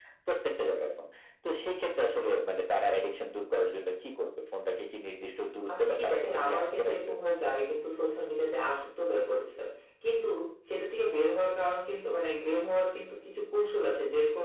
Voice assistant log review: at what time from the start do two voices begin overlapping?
5.7 s

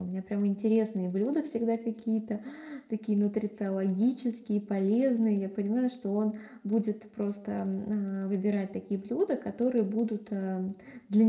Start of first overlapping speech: none

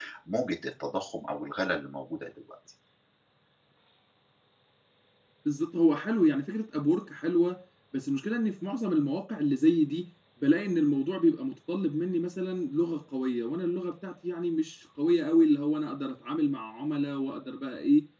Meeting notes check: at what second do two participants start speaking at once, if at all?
none

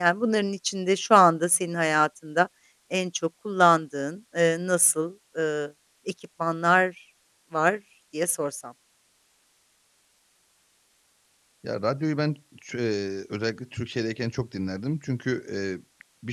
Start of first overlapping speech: none

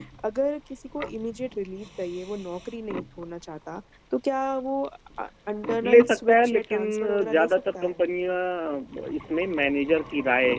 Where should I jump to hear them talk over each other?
5.8 s

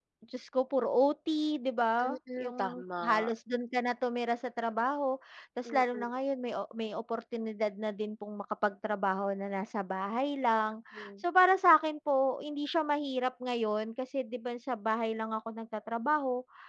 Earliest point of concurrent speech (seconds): 2.0 s

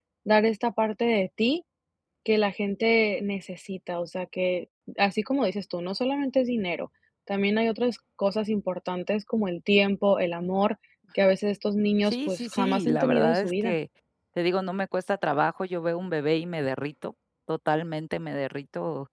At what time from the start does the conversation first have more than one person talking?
12.1 s

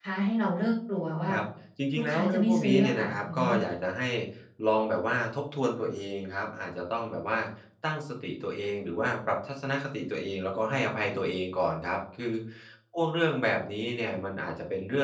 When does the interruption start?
1.9 s

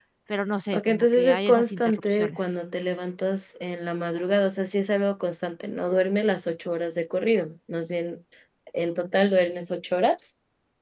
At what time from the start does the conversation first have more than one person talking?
0.7 s

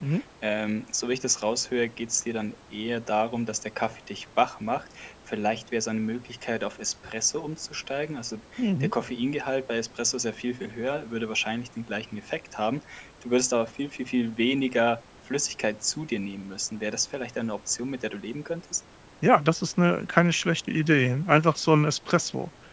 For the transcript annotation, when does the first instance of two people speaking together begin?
none

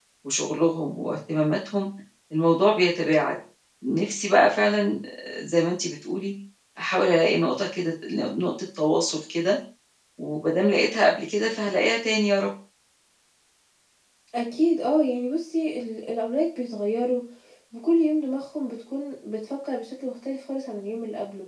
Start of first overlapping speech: none

